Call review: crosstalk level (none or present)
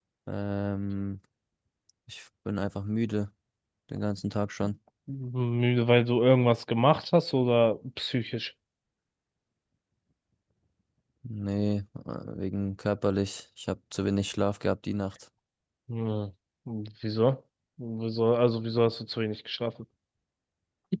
none